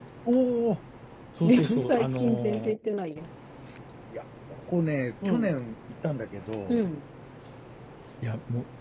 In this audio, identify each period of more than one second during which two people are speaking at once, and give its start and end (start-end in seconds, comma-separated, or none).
1.4-2.8